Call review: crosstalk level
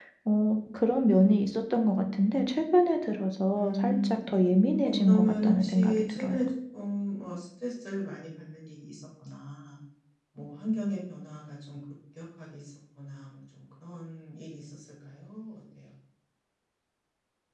present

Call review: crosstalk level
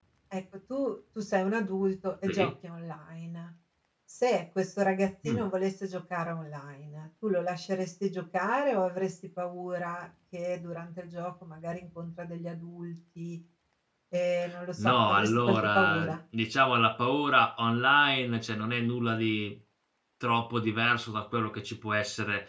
present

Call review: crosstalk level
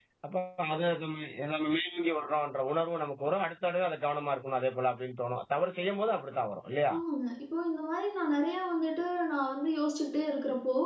none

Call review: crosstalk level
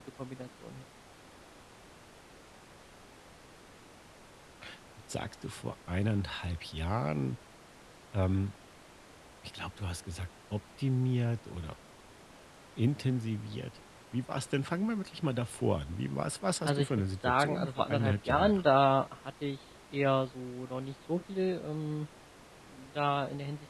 present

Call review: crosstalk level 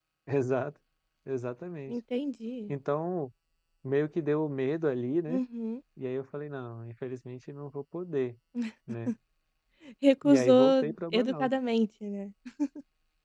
present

